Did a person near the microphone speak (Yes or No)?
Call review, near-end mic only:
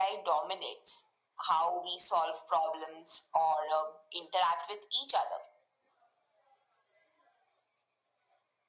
No